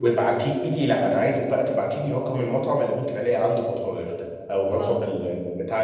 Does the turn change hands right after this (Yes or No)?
No